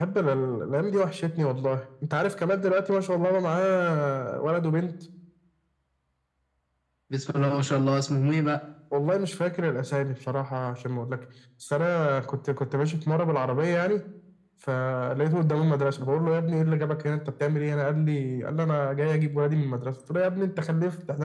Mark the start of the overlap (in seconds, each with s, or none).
none